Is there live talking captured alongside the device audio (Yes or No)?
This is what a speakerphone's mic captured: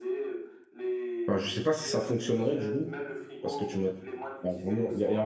Yes